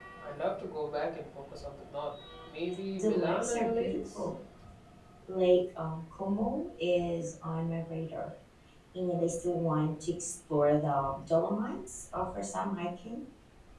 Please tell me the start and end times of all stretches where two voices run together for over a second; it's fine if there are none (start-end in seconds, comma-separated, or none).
2.9-4.3